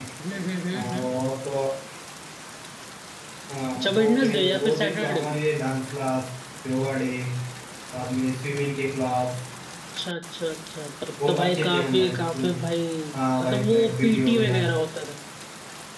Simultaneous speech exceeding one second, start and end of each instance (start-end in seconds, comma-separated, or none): 3.8-5.4, 11.3-12.6, 13.4-14.7